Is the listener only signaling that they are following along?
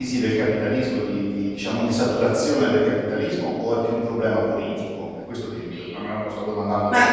No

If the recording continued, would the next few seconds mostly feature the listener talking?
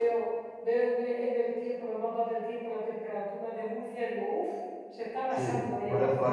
Yes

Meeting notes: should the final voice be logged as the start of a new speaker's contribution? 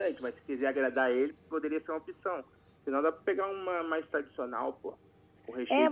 Yes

